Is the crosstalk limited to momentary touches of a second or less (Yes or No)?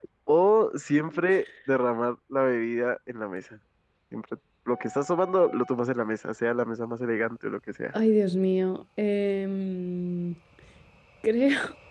Yes